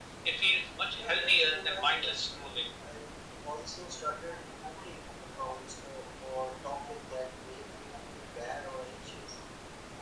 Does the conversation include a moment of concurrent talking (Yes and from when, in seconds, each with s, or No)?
Yes, from 1.0 s